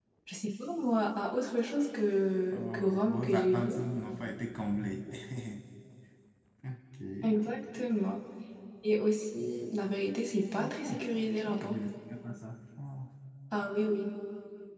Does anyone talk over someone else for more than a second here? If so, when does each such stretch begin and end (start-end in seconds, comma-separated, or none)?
2.5-3.7